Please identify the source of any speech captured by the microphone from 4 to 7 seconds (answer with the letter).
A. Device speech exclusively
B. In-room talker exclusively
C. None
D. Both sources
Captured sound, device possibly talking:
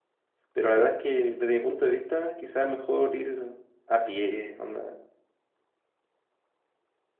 B